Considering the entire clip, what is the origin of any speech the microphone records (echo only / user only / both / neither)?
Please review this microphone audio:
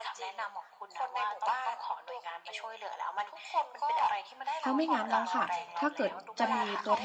both